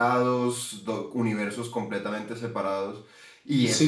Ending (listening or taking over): taking over